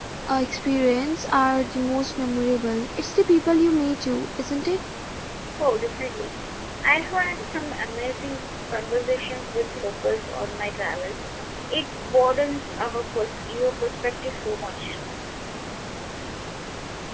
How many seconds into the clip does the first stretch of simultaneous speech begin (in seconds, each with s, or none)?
none